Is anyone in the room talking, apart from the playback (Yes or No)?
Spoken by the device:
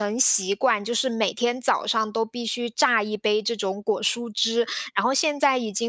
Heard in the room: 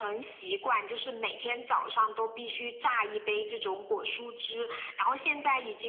No